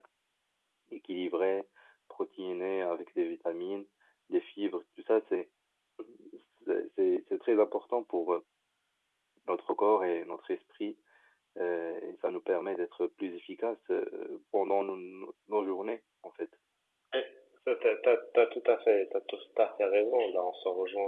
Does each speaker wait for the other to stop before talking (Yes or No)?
Yes